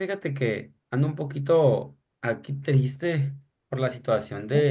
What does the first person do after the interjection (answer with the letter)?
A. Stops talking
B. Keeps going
B